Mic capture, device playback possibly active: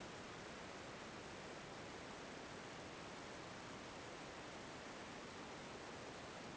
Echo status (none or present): none